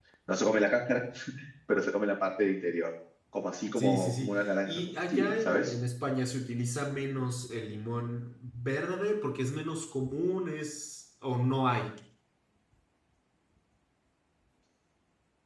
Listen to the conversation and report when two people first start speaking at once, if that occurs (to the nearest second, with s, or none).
4 s